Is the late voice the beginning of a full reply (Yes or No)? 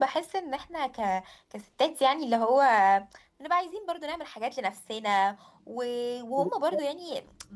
No